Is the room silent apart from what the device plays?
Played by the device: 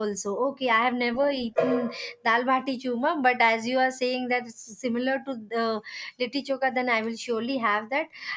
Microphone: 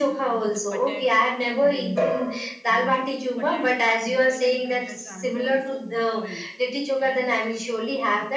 No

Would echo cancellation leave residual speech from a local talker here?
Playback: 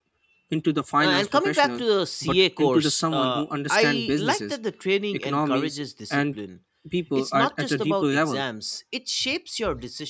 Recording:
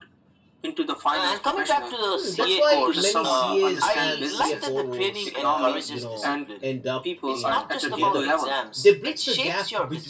Yes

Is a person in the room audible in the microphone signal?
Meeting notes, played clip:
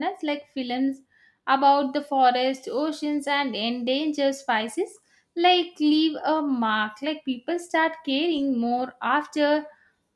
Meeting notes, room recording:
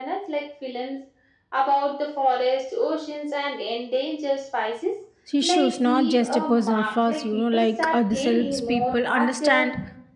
Yes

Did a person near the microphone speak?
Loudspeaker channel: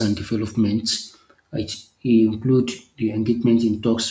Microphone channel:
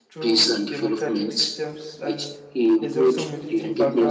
Yes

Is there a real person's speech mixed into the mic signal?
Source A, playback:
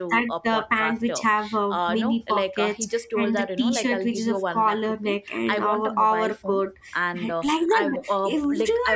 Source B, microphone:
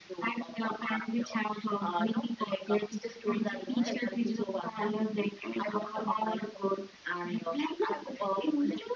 Yes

